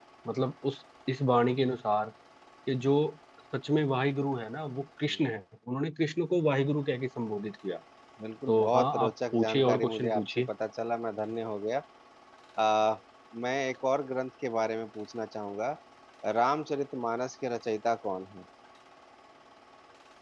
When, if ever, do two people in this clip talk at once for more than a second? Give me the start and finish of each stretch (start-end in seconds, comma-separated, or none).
8.5-10.5